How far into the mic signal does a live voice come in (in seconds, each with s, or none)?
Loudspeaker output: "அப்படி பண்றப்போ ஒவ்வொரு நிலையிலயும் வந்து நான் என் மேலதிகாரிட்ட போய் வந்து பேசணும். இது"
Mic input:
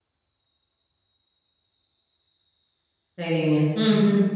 3.2 s